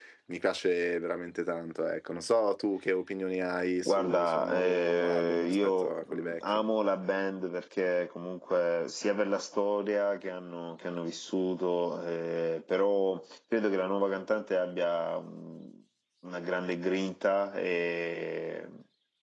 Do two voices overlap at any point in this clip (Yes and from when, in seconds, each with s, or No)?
Yes, from 3.8 s